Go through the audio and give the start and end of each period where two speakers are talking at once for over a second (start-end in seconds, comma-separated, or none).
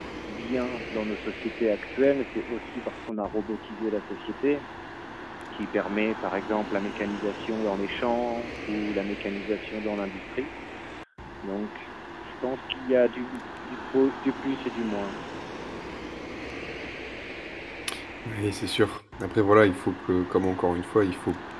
none